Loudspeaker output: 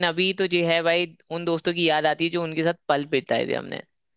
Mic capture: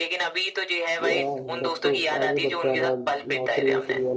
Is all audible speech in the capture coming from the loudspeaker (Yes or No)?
No